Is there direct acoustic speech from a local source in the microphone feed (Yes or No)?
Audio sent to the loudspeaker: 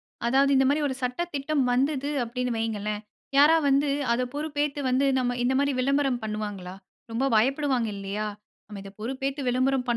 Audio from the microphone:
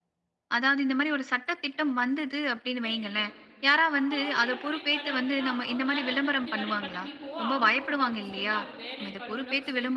Yes